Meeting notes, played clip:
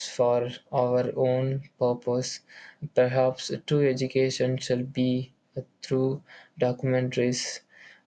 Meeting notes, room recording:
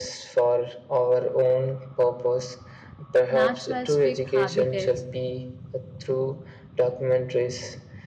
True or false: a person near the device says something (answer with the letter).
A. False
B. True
B